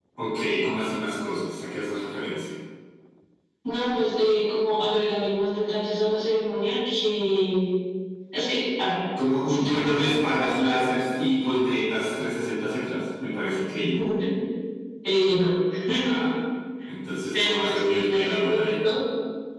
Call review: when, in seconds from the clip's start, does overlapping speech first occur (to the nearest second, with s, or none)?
9 s